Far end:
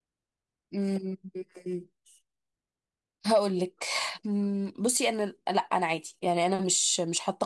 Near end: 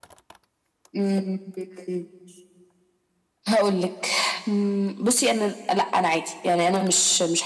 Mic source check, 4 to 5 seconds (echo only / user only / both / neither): echo only